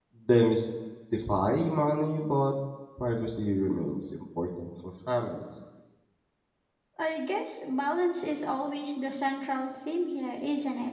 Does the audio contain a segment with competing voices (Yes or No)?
No